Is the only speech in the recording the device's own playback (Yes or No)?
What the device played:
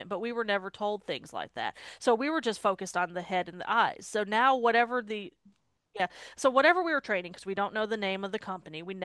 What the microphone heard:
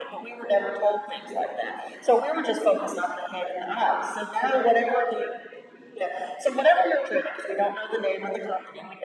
Yes